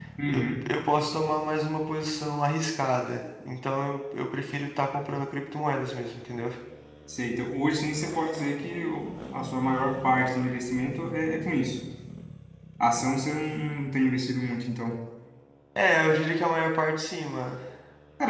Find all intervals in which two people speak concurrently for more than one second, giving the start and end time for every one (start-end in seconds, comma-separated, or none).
none